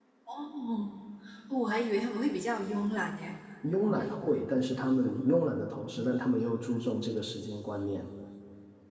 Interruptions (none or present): none